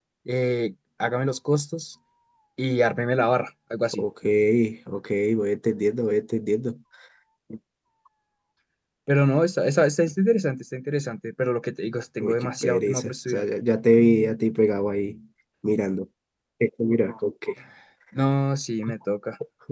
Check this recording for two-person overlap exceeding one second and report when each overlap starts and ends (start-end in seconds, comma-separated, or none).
12.2-13.4